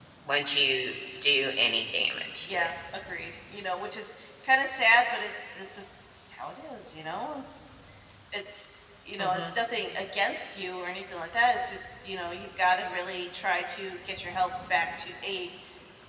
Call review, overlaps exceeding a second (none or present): none